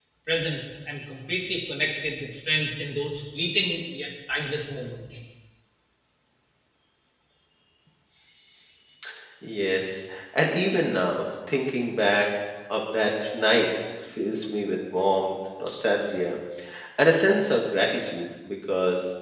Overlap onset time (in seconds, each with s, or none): none